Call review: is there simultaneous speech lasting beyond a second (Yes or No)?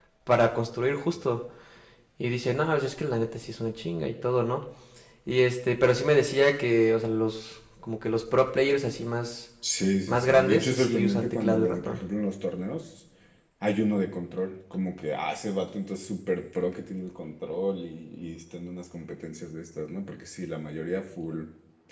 Yes